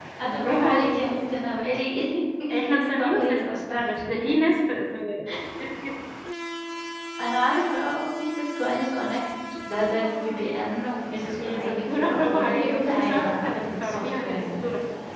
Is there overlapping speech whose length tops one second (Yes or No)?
Yes